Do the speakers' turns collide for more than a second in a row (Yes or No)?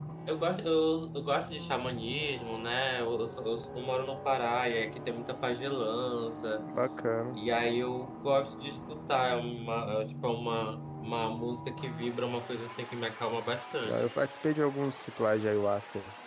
No